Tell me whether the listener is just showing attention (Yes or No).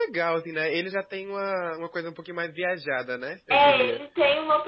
No